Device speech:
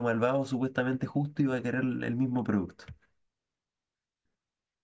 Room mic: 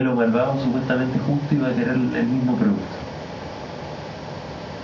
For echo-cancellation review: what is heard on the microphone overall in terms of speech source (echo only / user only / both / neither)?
echo only